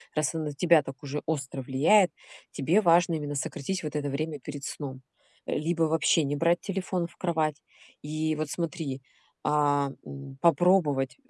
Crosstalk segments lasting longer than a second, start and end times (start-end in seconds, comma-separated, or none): none